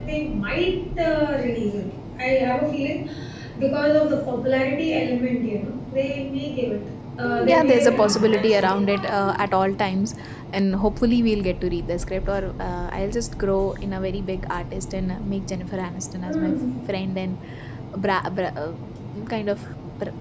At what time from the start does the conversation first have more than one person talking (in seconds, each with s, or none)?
7.4 s